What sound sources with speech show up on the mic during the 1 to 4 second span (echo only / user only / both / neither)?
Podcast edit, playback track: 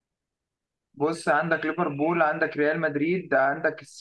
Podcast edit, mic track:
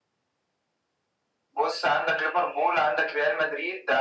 echo only